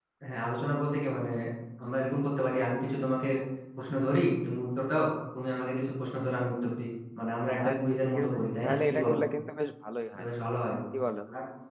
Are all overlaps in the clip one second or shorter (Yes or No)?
No